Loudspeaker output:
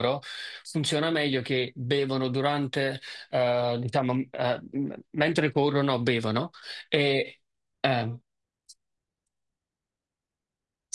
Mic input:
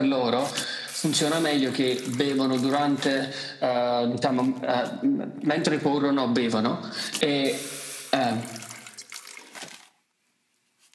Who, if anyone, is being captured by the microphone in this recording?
echo only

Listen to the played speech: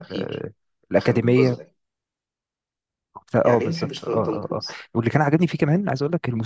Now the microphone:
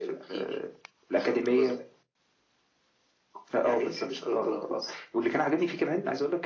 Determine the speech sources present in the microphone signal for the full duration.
echo only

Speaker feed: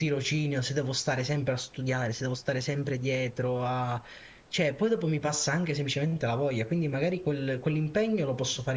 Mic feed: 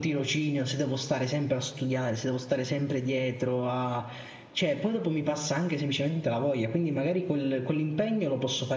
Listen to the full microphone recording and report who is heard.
echo only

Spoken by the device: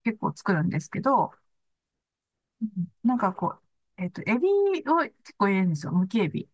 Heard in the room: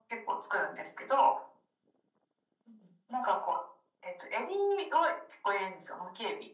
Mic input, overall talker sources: echo only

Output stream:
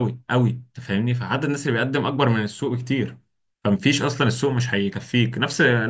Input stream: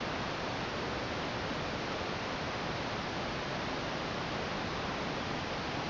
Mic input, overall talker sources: neither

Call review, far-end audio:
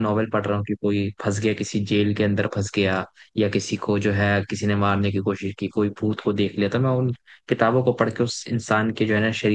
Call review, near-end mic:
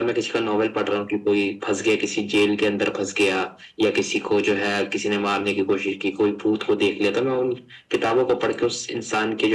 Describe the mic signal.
echo only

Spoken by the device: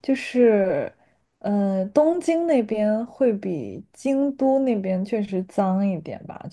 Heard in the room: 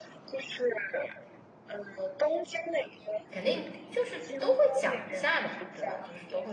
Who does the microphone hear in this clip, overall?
both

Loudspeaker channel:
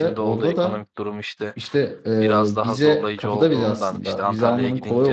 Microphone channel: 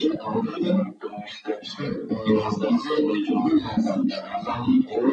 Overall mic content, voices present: echo only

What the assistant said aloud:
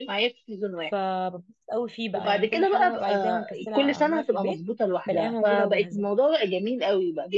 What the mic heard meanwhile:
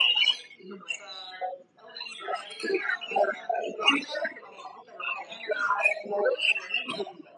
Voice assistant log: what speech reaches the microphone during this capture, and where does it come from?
echo only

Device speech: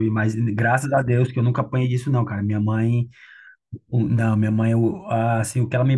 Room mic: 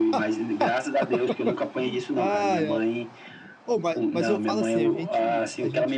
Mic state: both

